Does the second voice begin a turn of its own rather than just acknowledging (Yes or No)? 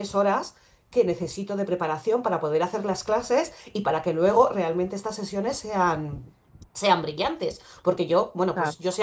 No